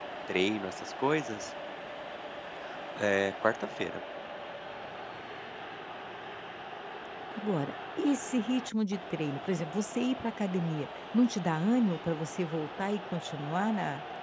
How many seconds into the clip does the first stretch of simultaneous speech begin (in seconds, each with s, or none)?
none